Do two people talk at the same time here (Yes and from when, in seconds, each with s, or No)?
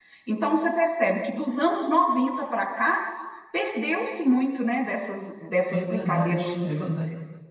Yes, from 5.7 s